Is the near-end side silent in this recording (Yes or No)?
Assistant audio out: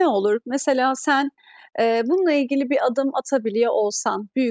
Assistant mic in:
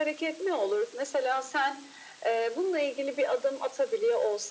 Yes